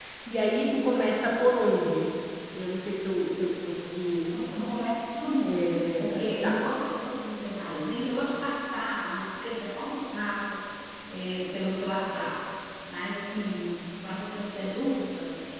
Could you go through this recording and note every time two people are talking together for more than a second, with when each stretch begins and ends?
5.4-6.6

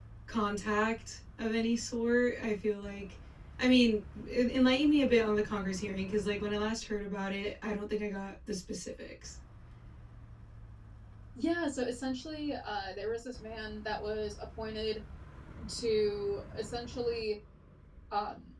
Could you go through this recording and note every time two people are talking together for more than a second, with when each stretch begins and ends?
none

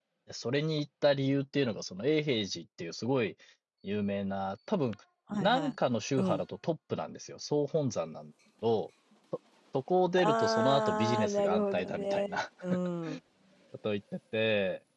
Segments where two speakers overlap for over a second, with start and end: 10.2-12.4

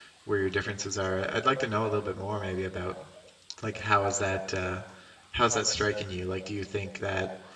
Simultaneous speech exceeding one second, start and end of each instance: none

